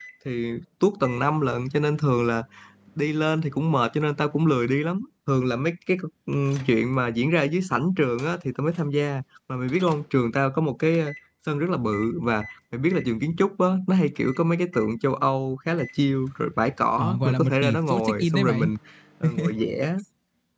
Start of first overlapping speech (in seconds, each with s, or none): 17.0 s